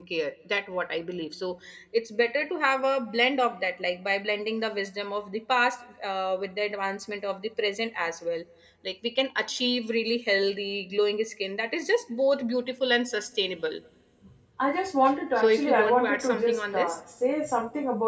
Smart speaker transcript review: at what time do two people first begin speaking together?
15 s

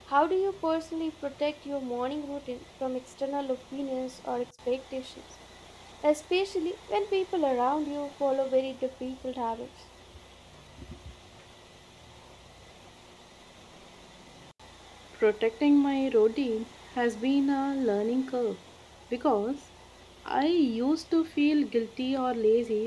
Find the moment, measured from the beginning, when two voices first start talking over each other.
none

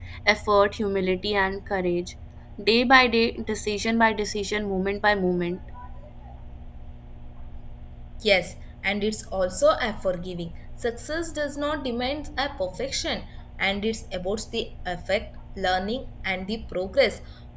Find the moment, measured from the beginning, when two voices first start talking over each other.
none

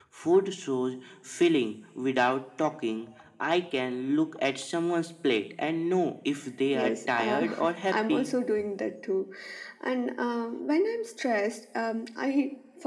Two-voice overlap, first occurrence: 7 s

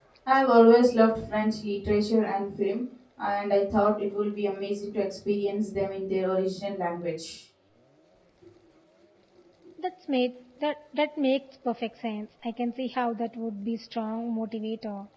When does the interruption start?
none

